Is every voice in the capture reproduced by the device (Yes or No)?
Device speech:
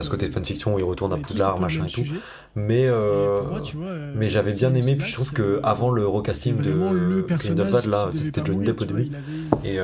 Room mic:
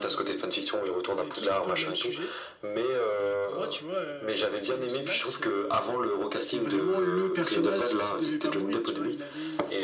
Yes